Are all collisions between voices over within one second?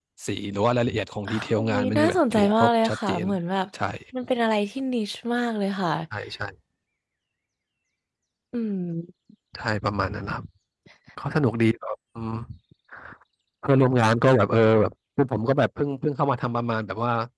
No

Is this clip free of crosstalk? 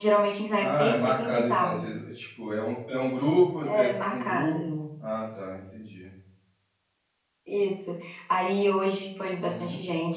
No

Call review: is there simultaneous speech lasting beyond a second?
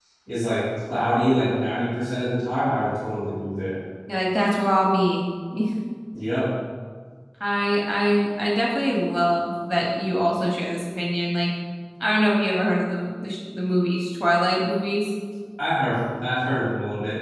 No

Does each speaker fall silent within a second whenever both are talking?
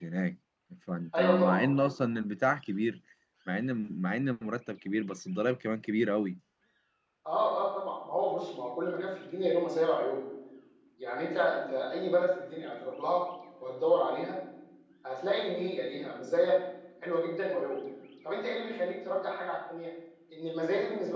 Yes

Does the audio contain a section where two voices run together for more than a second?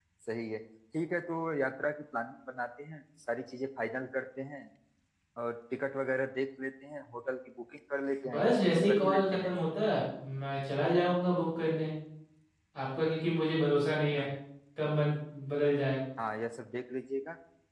Yes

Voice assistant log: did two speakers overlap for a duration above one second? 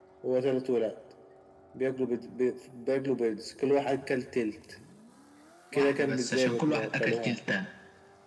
Yes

